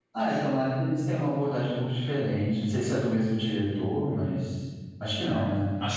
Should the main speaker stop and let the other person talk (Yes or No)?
Yes